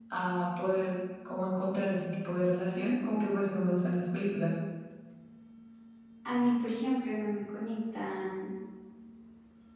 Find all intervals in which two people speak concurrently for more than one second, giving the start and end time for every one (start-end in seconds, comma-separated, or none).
none